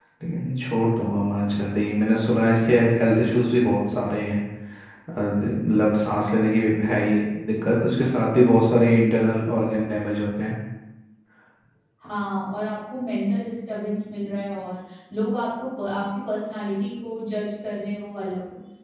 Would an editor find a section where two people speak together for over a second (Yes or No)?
No